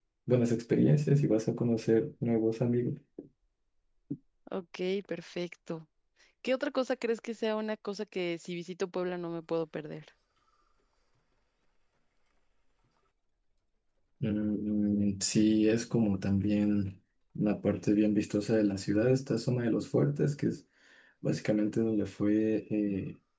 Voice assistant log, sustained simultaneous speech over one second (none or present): none